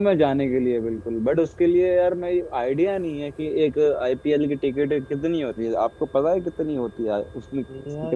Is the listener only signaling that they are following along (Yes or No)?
No